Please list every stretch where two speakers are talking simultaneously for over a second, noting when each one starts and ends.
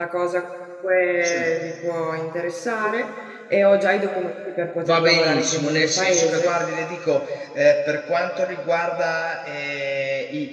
4.8-6.5

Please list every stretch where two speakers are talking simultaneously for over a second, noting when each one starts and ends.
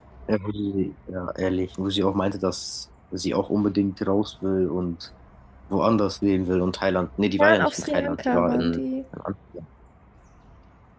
7.4-8.8

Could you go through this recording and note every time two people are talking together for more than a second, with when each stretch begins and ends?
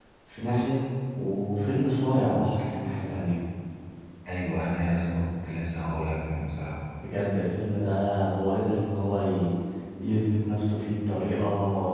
none

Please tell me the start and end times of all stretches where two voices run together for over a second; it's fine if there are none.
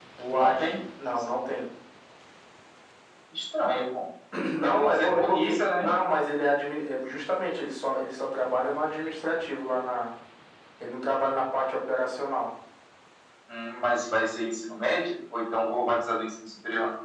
4.6-5.9

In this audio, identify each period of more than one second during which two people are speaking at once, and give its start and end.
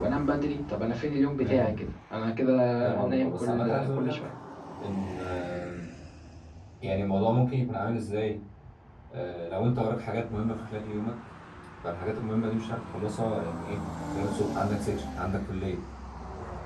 3.0-4.3

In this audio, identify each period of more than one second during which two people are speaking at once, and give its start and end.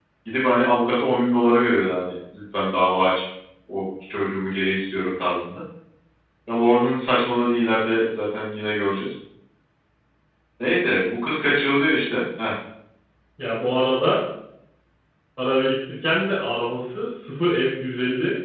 none

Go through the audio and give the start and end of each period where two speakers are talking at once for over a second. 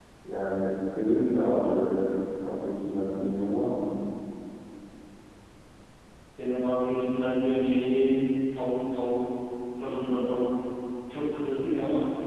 none

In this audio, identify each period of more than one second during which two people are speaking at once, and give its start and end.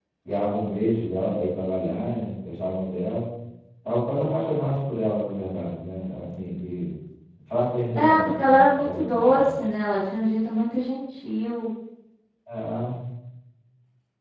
8.0-9.5

